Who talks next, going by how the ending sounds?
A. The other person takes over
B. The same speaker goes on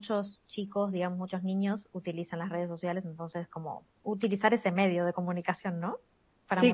A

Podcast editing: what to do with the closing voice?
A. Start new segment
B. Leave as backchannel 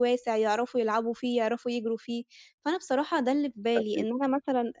B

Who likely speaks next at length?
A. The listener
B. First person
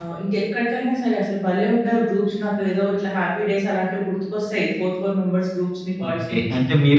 A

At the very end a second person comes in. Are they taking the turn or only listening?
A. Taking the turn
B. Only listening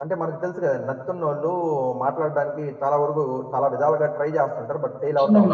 A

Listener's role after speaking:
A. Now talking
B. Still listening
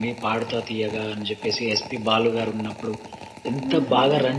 B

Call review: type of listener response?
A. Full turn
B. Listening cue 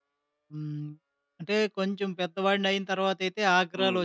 B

